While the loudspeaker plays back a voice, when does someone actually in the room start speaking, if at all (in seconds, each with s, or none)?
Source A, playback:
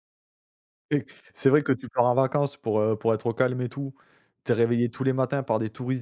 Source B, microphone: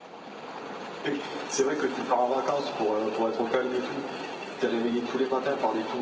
none